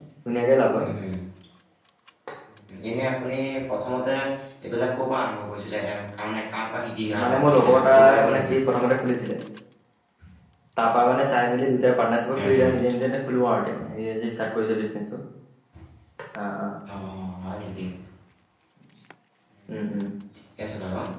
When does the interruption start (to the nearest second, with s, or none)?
7 s